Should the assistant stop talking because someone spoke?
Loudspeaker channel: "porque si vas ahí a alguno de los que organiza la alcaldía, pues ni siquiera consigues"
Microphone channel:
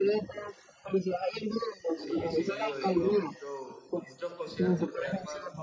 Yes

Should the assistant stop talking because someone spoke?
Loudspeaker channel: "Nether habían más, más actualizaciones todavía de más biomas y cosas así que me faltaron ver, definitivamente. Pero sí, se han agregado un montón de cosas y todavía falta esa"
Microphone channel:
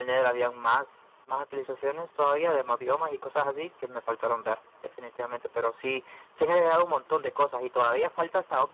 No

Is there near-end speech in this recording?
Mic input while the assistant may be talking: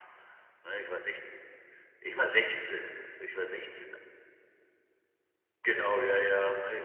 No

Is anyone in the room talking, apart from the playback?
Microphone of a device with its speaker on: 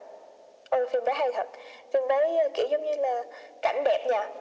No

